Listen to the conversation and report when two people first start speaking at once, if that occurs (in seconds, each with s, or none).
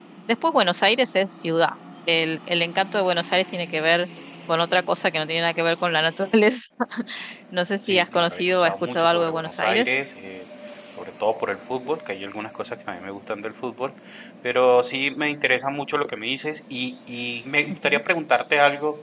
7.9 s